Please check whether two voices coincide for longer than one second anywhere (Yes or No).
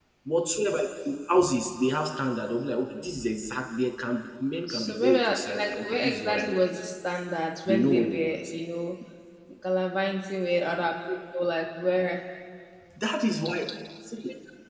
Yes